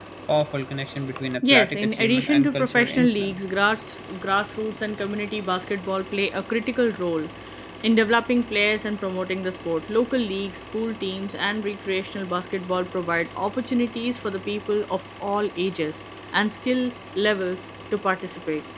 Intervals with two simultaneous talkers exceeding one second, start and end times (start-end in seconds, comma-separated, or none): 1.4-3.4